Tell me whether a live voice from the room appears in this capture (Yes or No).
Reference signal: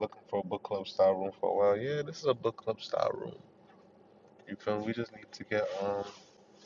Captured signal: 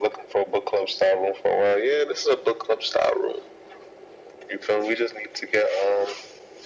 No